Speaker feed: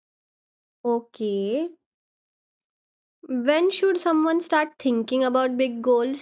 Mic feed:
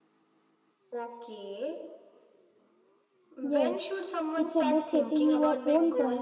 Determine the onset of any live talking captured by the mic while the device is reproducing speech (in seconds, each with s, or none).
3.4 s